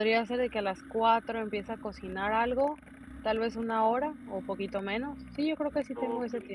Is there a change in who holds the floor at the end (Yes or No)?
Yes